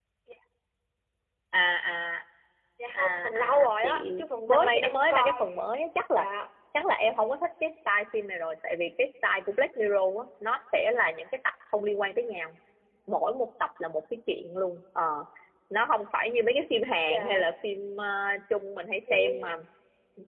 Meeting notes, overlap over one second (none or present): present